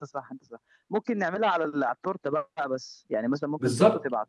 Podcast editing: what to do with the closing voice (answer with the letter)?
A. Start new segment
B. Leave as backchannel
A